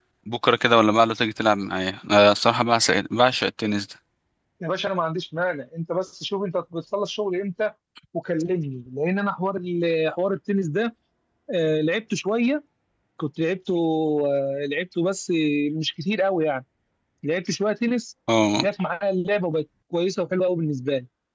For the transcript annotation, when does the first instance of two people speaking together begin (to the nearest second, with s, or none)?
none